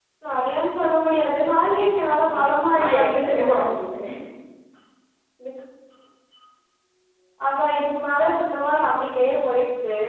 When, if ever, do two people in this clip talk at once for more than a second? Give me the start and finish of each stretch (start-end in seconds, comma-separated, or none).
2.3-3.5